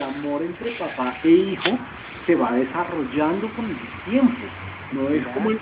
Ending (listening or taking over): listening